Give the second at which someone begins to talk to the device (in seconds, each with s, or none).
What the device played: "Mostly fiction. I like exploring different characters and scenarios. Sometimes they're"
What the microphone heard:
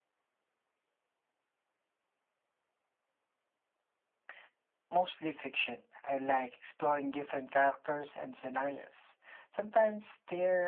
none